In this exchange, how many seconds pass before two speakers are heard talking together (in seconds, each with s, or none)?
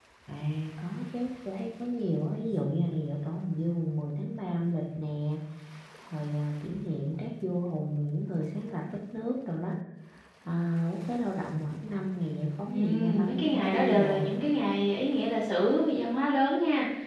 12.7 s